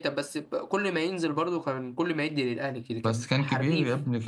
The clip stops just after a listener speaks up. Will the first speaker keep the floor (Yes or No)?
No